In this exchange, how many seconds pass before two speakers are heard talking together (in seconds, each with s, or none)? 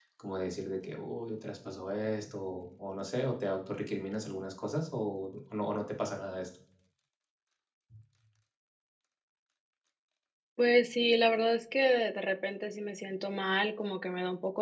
none